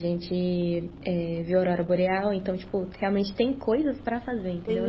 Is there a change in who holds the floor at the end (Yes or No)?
Yes